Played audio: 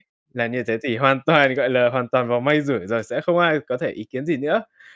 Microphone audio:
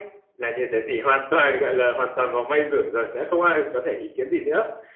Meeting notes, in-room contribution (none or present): none